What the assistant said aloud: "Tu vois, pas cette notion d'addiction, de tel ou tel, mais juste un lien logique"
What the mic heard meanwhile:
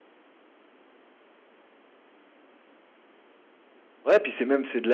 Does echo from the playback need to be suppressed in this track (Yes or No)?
No